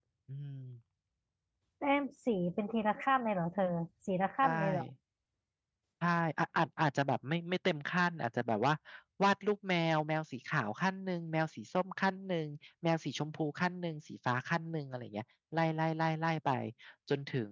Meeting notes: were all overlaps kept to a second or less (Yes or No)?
Yes